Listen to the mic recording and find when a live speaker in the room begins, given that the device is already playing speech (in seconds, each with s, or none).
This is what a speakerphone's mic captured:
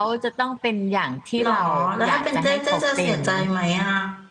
1.4 s